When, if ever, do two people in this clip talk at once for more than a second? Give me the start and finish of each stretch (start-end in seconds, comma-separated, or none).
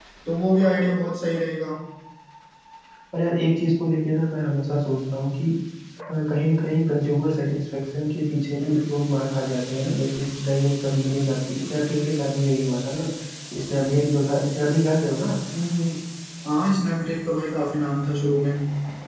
none